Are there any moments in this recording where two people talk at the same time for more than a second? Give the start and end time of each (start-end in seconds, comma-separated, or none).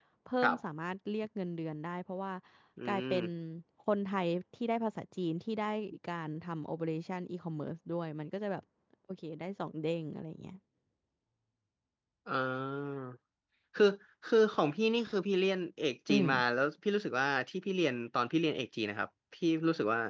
none